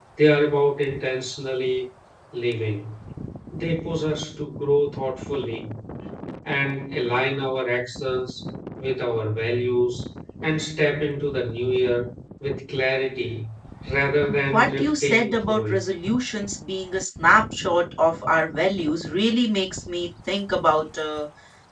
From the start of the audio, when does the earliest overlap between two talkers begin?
14.5 s

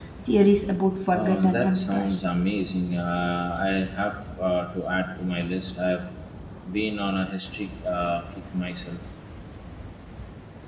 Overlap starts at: 1.1 s

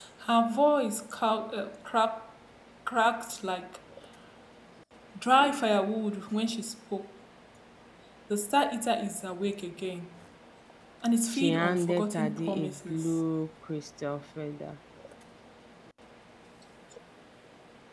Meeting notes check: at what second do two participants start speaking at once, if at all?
11.3 s

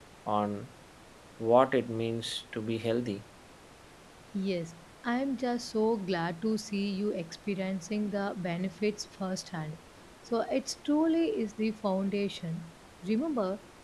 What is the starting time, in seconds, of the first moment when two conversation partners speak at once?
none

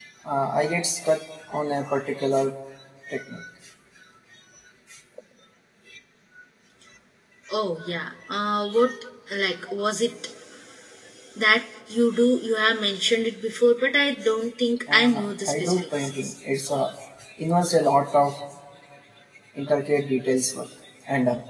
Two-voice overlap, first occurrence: 14.9 s

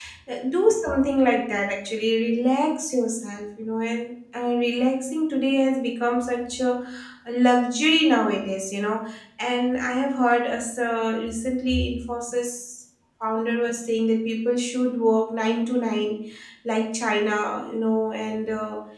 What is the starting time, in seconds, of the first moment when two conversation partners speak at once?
none

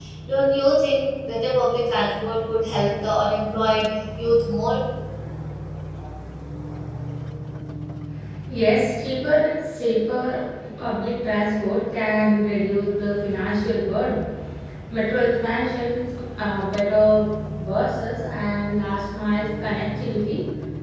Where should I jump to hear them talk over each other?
none

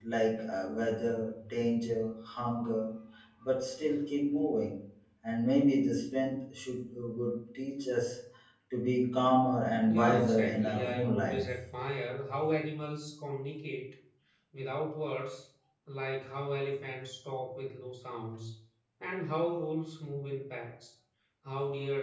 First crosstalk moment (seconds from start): 9.9 s

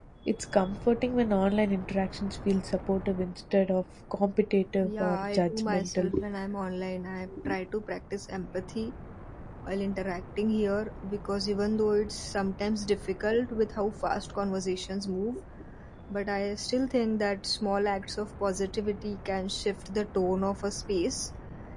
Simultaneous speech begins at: 4.8 s

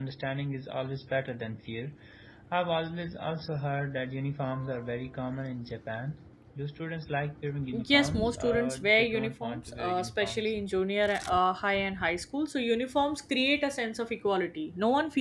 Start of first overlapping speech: 7.7 s

